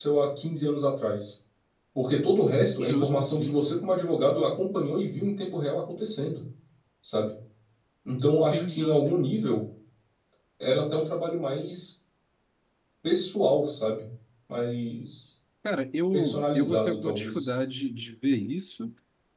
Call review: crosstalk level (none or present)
present